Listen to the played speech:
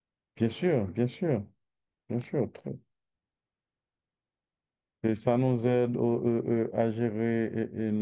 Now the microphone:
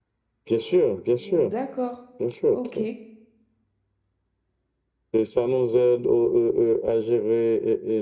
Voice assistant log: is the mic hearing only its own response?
No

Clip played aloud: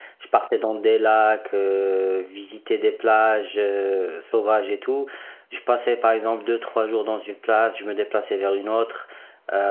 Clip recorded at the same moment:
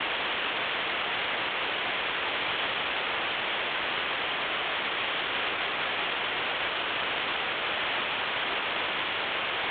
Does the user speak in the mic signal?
No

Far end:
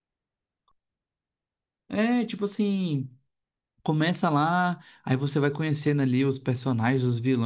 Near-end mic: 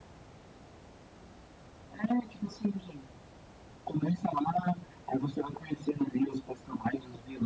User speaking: No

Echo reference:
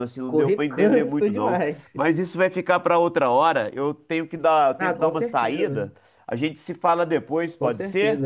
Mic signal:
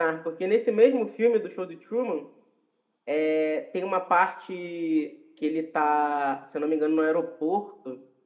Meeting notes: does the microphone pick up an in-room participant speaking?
Yes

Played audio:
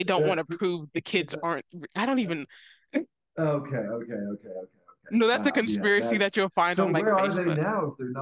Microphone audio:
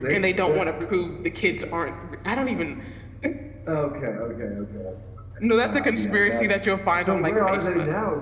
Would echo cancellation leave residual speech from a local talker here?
No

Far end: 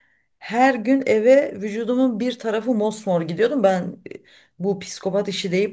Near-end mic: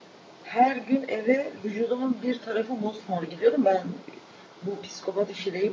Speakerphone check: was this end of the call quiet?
Yes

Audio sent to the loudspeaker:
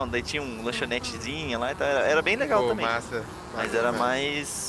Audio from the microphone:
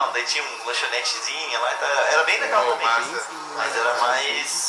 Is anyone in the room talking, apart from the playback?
Yes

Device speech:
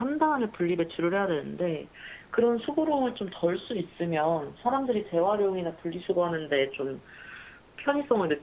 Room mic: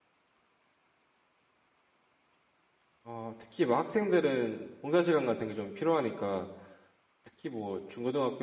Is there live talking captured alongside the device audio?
Yes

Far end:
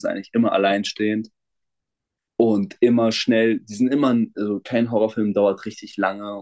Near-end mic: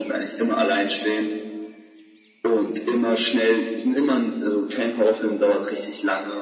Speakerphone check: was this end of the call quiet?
Yes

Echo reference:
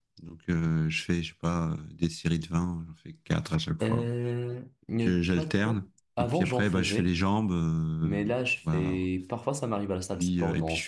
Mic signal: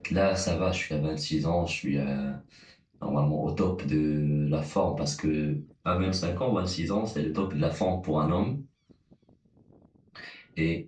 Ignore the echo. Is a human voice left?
Yes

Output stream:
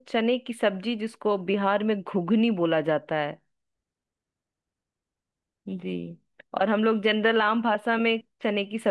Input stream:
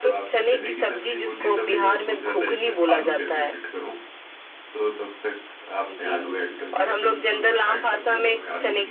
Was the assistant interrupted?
Yes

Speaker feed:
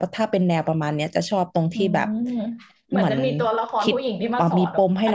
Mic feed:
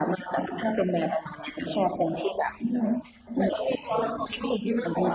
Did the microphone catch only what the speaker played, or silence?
Yes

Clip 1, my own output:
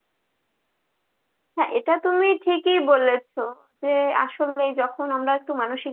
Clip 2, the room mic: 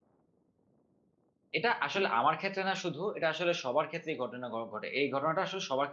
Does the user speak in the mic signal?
Yes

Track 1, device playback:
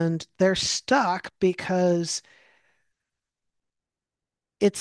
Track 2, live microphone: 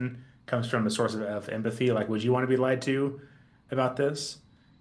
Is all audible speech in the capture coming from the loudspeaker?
No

